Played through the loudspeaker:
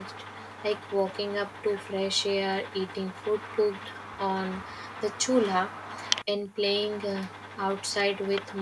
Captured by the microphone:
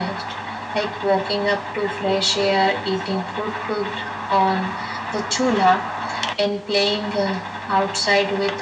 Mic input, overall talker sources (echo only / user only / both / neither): both